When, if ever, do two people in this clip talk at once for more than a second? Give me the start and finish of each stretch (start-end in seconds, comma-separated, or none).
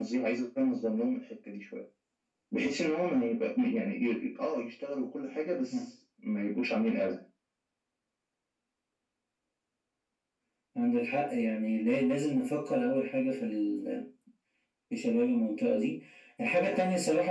none